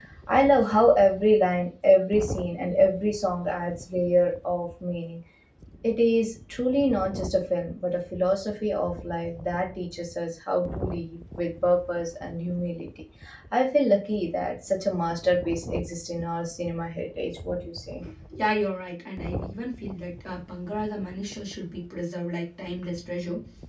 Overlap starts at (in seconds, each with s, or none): none